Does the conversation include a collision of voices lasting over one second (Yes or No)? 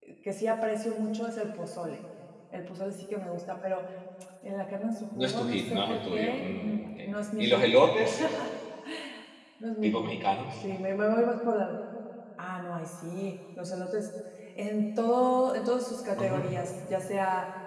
Yes